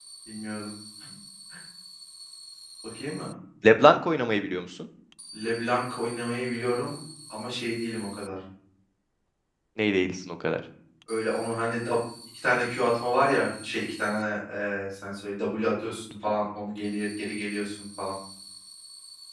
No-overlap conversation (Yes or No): Yes